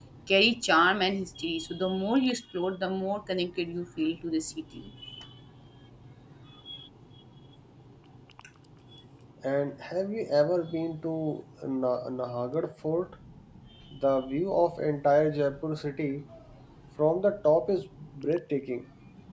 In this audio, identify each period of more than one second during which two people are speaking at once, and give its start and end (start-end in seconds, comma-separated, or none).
none